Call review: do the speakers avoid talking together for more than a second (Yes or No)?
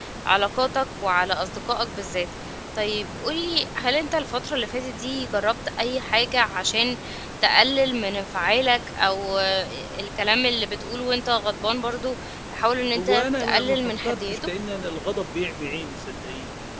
No